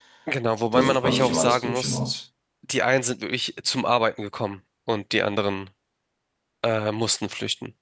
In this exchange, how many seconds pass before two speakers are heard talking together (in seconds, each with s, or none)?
0.7 s